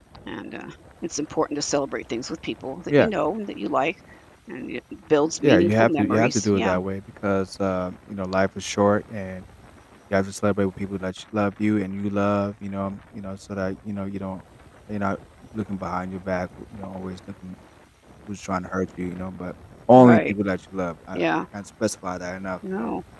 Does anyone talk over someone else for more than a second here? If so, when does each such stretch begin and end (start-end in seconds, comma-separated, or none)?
5.4-6.8